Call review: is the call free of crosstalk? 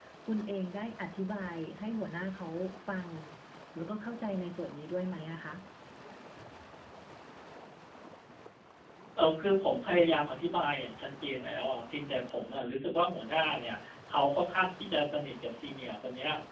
Yes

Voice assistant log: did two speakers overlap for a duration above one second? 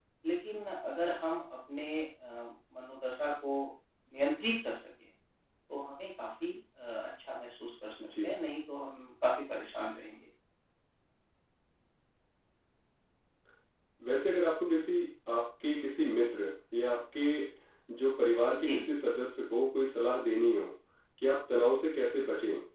No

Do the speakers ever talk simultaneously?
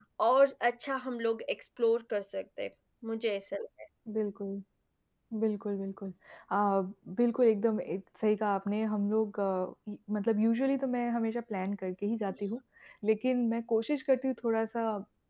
No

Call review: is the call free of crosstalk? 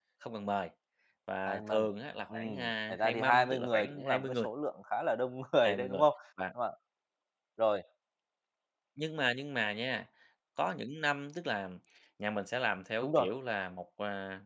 No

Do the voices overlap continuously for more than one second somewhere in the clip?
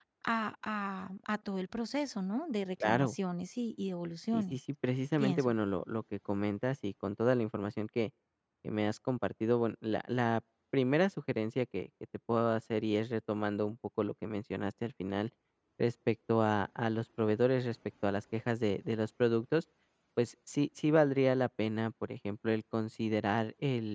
No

